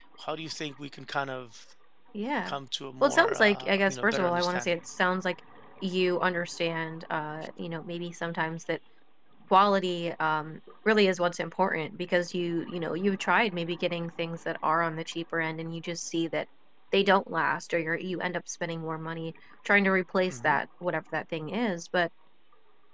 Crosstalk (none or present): present